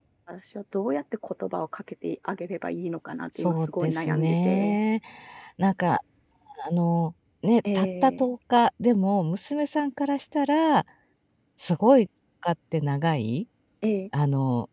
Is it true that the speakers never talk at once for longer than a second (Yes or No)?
No